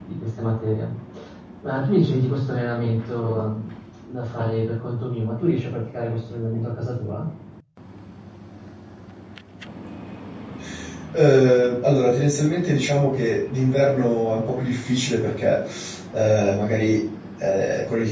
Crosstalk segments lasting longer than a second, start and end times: none

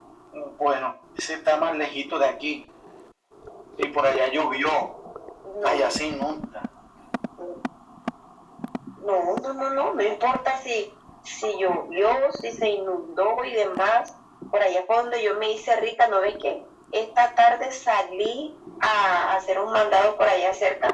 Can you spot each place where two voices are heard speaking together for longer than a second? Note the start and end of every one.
none

